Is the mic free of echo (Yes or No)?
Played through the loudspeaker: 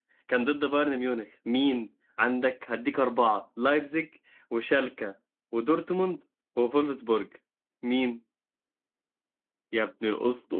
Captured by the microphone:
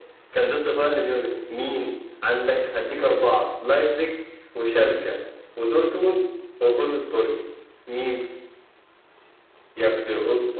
No